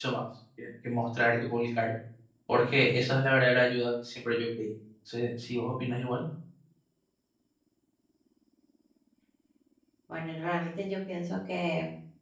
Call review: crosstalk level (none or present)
none